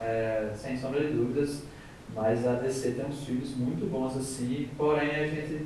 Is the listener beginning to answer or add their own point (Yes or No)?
No